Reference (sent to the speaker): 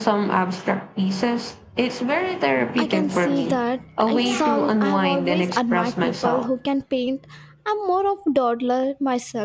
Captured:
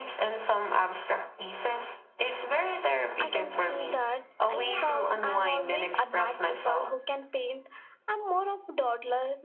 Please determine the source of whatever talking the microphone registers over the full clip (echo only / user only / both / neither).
echo only